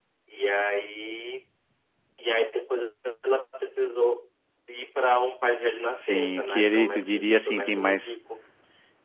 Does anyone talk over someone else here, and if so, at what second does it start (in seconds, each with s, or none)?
6.0 s